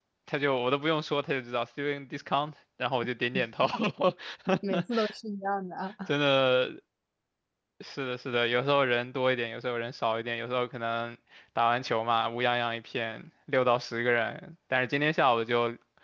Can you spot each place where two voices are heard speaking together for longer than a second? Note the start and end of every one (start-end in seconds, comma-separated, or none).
none